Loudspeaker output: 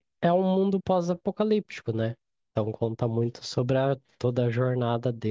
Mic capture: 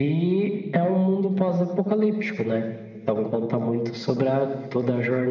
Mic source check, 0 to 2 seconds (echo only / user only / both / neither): echo only